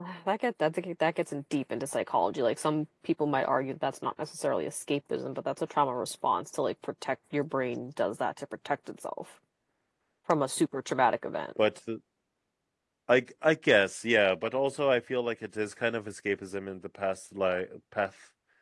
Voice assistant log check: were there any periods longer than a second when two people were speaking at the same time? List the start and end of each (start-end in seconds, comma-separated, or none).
none